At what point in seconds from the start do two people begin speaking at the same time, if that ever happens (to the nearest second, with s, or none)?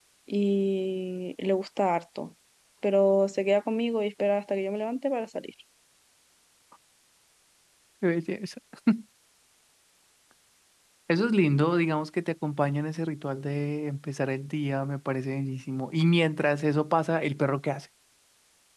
none